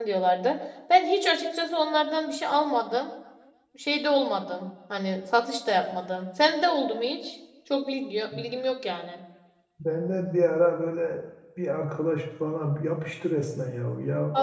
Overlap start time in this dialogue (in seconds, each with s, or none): none